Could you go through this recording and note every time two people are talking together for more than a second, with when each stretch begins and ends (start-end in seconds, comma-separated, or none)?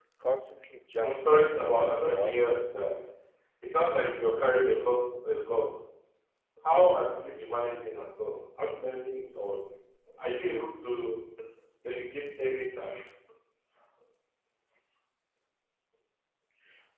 1.0-2.6